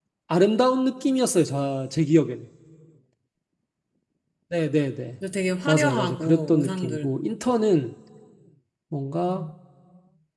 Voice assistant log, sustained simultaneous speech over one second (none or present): present